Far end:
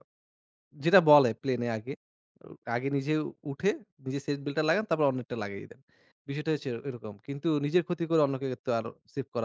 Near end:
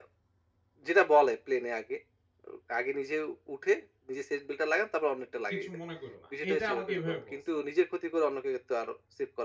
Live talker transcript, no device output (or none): কিছু মনে করো না।" এটা আমাকে এভাবে বলছে।